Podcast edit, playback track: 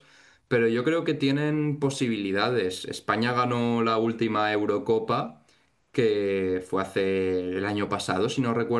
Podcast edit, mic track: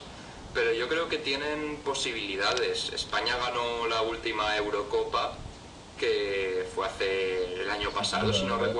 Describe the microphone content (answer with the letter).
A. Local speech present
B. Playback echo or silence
A